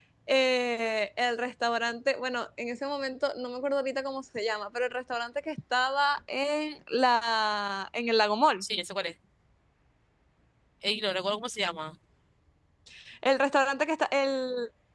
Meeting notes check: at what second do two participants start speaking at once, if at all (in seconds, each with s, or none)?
none